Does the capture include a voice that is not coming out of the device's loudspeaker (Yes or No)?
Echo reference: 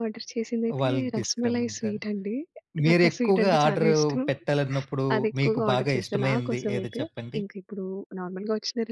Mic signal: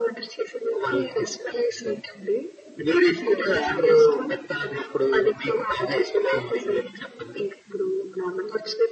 No